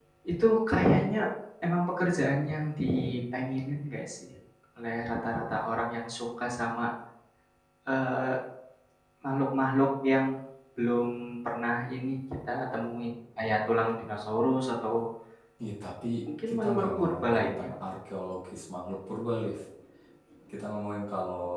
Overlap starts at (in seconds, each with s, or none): 16.5 s